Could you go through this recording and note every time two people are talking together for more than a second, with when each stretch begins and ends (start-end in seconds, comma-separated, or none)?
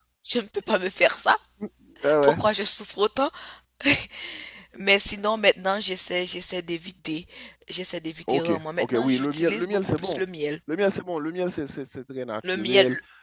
8.3-10.2